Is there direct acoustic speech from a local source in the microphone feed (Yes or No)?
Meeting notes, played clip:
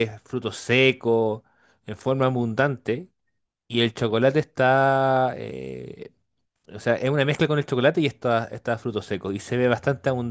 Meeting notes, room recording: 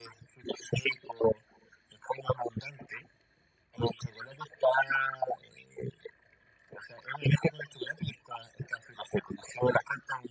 No